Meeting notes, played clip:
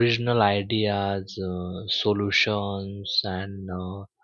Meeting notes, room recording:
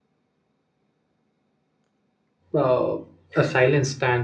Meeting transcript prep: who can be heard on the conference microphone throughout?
user only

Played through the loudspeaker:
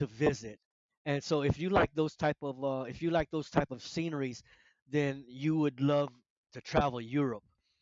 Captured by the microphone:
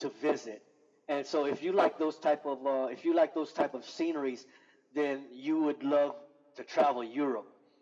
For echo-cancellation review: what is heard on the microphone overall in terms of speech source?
echo only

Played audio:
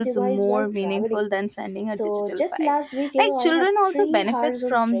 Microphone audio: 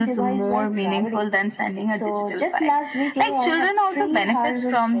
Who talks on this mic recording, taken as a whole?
echo only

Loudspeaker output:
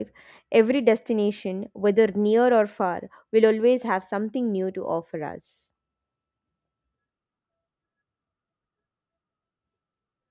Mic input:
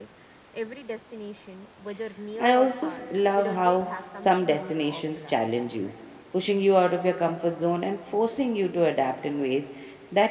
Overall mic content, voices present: both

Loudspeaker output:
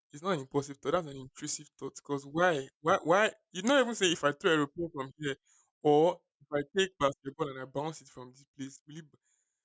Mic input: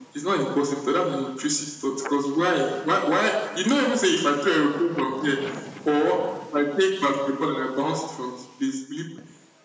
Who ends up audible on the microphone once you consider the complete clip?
echo only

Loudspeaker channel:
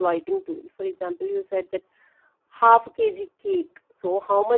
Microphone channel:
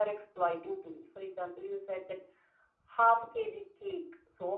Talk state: echo only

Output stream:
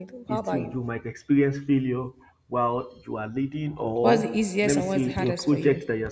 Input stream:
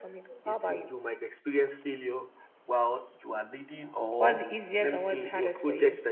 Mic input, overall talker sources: echo only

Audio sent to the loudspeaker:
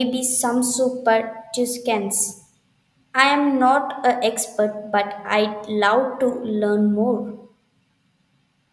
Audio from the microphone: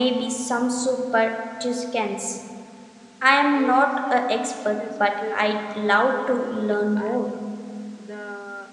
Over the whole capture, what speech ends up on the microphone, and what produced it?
both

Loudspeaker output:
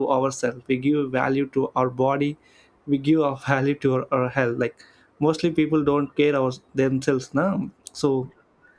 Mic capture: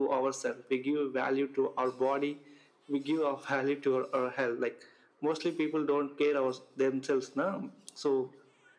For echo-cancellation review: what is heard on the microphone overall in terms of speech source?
echo only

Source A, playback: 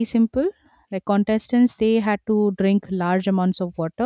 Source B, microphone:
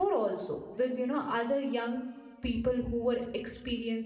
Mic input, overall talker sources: user only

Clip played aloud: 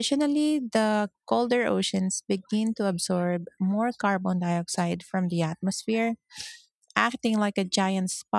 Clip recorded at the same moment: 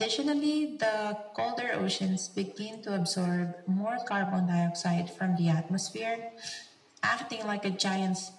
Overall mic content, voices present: echo only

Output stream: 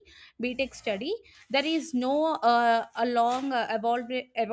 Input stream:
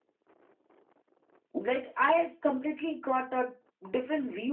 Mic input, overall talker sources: user only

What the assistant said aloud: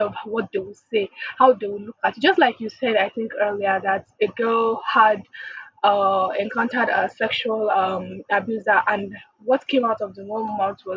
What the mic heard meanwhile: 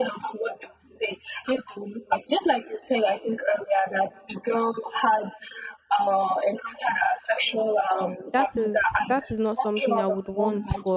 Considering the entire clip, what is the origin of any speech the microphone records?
both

